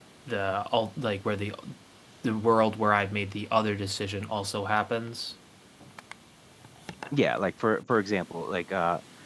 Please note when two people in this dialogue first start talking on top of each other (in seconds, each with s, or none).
none